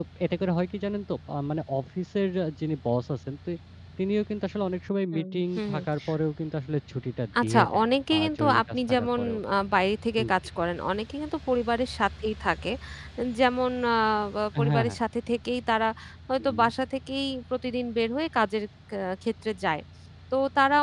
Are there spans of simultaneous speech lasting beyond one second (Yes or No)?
Yes